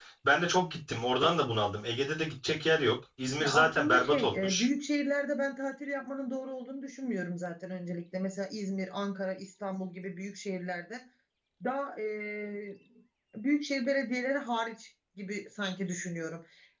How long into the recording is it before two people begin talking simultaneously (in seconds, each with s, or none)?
3.4 s